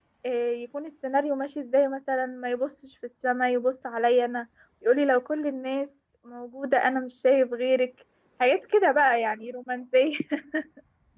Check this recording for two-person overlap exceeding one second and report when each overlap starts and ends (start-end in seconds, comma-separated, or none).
none